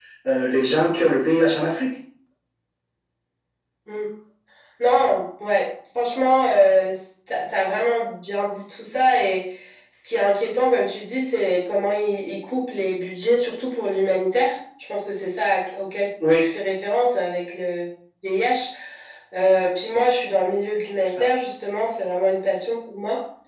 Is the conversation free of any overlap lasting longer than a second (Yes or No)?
Yes